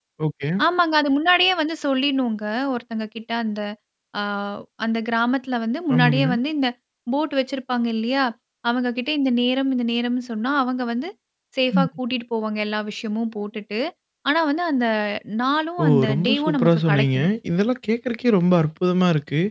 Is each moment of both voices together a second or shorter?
No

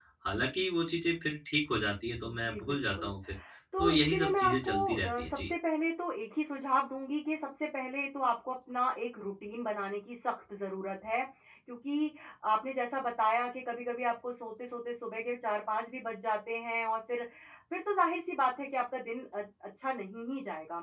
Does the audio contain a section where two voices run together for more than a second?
Yes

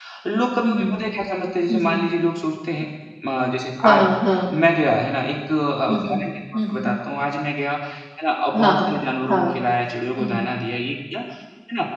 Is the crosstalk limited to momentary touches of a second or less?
Yes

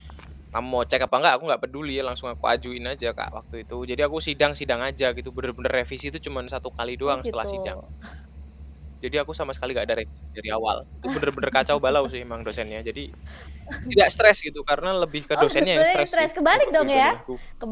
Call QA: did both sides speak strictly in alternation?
No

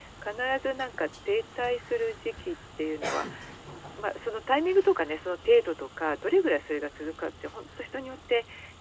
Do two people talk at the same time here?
No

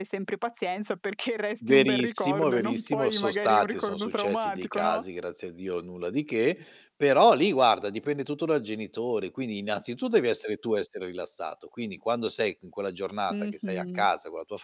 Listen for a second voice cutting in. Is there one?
Yes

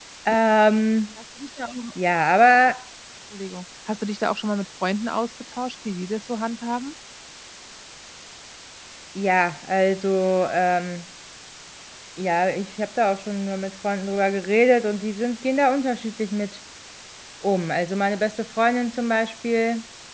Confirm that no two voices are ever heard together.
Yes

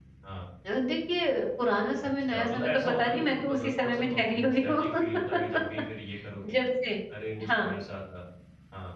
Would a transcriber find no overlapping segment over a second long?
No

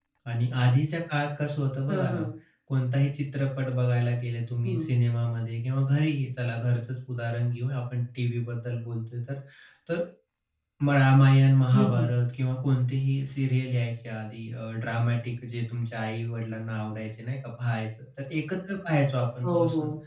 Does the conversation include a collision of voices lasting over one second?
No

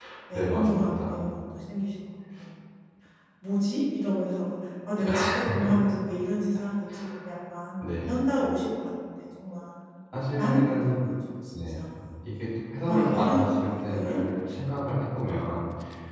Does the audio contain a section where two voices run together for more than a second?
Yes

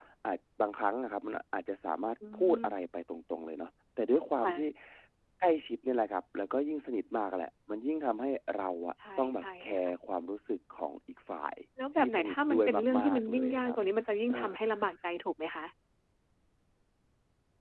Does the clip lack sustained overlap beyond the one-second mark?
No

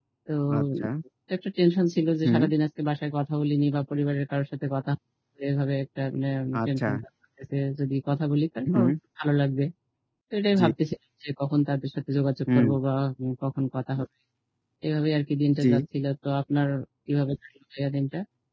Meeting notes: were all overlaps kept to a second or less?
Yes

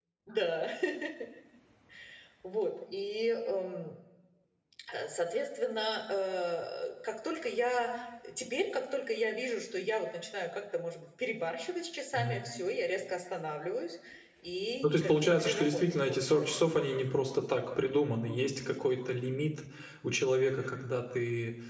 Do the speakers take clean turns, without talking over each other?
No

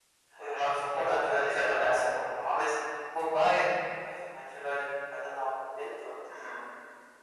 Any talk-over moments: Yes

